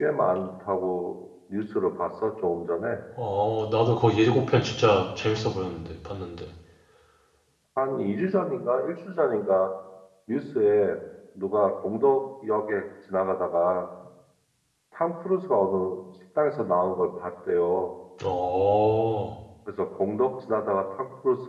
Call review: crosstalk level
none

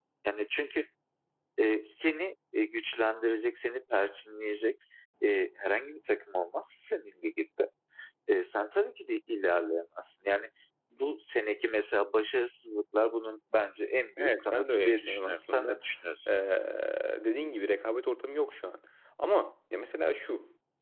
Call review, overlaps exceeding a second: present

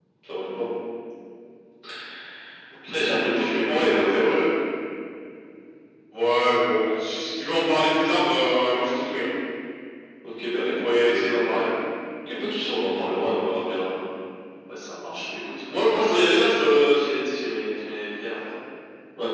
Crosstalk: present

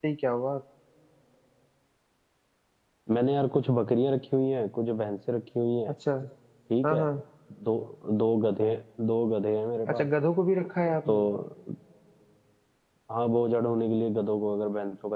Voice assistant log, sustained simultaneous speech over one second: none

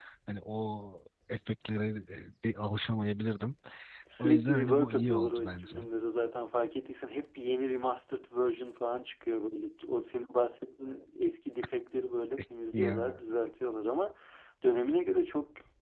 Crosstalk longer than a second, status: present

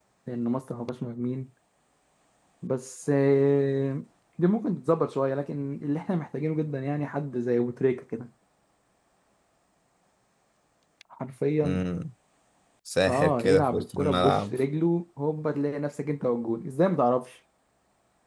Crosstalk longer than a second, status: present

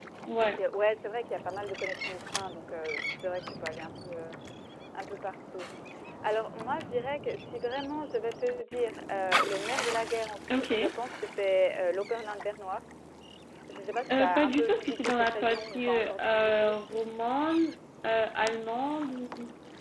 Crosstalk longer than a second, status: present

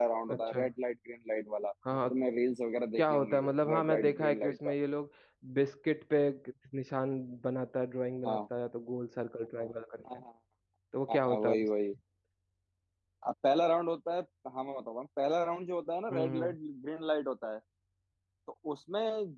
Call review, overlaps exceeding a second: present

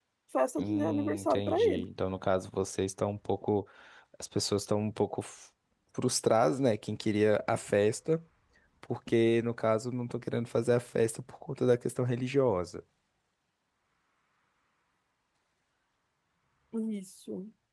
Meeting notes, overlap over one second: present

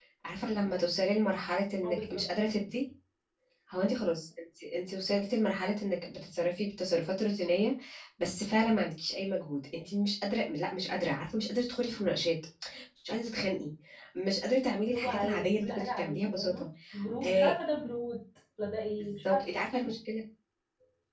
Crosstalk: present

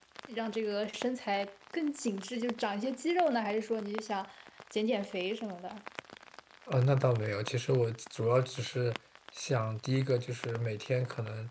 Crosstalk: none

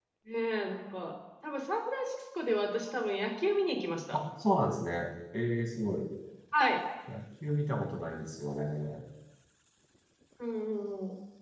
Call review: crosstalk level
none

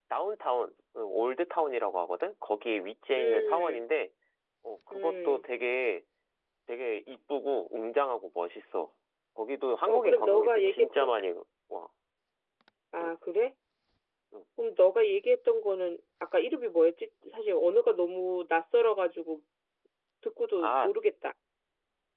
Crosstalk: present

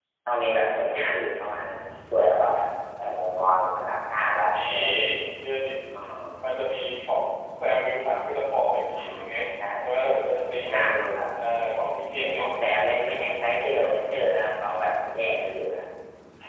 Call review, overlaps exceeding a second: none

